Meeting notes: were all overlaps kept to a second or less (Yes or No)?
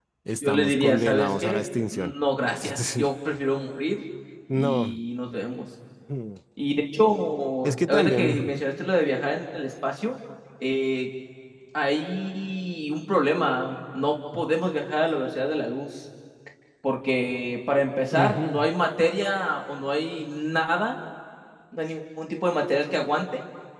No